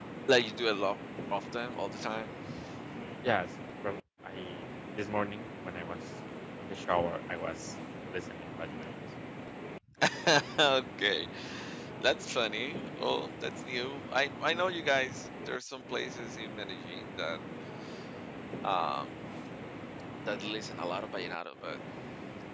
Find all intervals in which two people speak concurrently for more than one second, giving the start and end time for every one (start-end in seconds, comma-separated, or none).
none